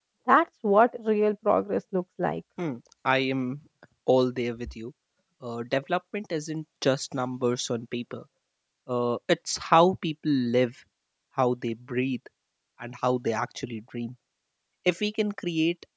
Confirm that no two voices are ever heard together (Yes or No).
Yes